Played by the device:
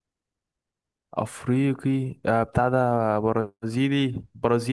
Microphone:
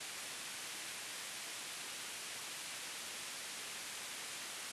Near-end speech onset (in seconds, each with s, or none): none